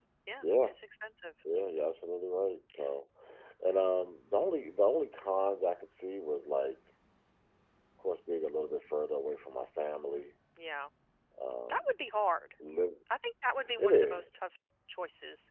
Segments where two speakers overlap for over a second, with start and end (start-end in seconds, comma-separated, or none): none